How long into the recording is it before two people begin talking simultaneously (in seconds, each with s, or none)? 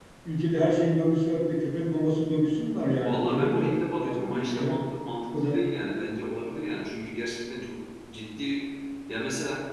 3.0 s